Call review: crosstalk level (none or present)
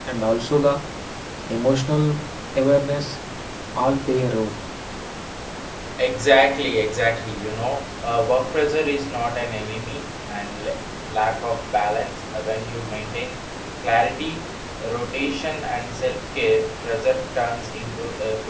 none